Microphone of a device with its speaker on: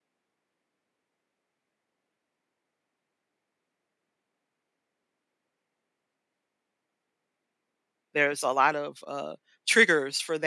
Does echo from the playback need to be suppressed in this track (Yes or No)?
No